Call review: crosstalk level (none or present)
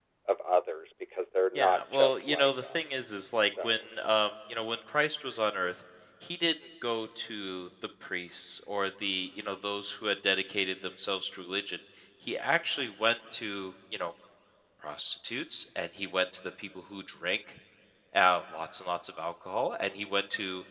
present